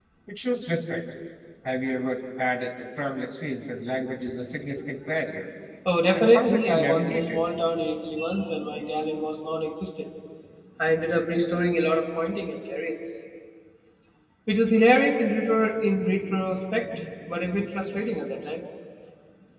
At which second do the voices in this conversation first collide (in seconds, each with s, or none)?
6.1 s